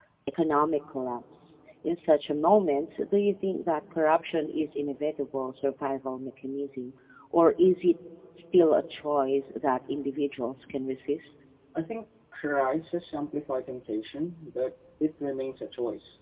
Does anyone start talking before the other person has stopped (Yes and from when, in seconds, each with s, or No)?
No